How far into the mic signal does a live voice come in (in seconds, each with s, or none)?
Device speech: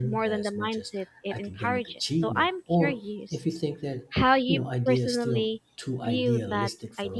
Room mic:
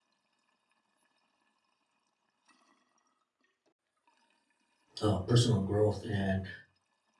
5.0 s